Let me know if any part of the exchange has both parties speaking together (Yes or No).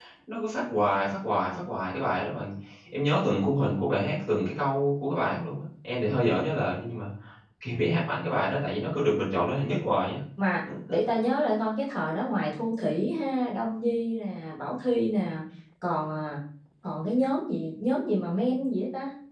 No